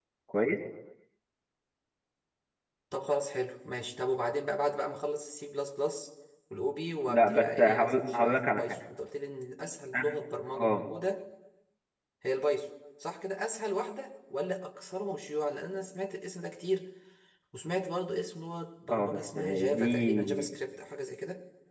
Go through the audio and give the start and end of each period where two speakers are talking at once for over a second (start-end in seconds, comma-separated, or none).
7.1-8.8, 18.9-20.5